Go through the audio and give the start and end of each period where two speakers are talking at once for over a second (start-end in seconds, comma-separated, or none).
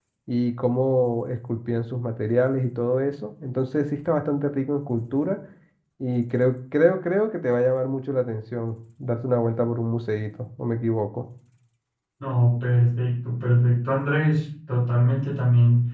none